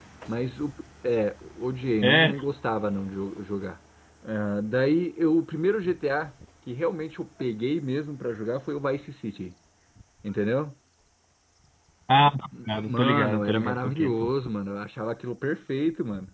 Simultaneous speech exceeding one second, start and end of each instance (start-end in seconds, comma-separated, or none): 12.9-14.3